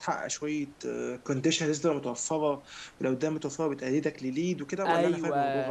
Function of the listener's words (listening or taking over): taking over